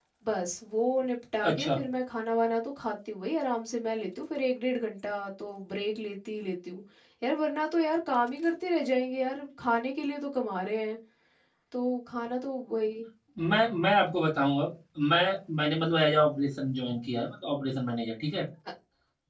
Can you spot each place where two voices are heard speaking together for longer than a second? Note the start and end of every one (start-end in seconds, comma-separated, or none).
none